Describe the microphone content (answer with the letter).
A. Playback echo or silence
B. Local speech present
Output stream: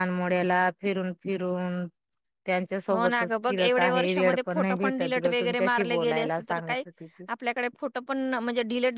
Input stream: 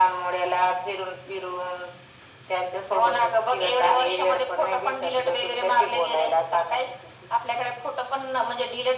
A